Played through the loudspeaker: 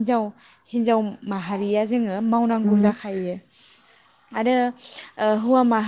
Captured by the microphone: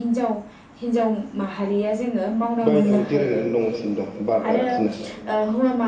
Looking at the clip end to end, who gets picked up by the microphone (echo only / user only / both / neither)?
both